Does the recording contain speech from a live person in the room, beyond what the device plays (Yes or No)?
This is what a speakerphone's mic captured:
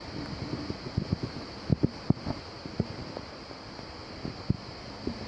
No